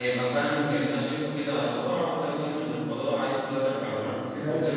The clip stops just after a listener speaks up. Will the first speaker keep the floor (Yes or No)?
No